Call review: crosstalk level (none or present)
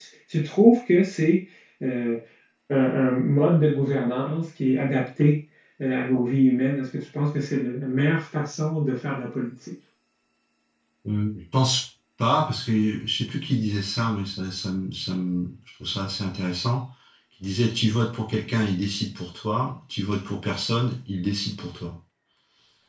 none